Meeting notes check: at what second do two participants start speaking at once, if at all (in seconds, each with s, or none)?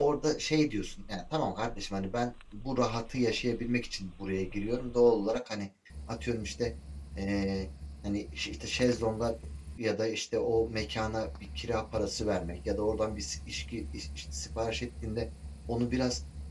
none